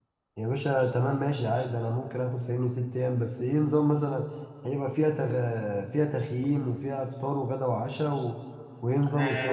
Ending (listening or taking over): taking over